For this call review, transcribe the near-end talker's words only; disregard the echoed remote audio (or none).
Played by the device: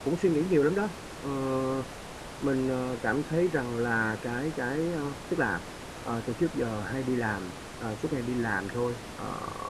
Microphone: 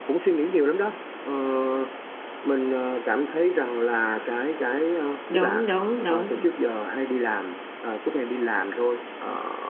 đúng đúng đúng